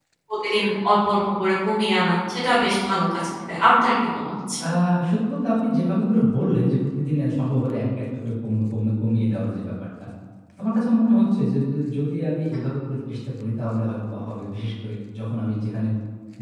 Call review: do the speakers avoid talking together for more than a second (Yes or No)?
Yes